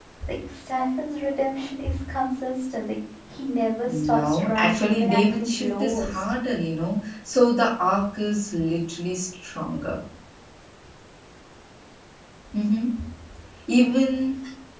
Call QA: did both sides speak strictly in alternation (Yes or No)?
No